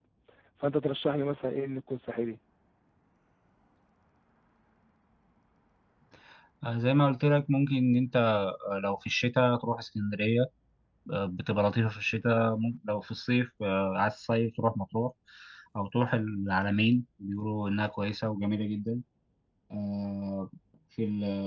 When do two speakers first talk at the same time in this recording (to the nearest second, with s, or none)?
none